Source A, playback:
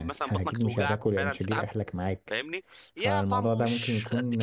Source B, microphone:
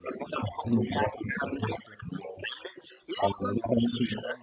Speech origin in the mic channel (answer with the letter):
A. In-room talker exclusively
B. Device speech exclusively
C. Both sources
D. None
B